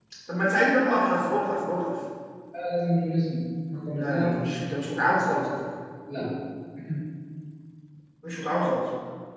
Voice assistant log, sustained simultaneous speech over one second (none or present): none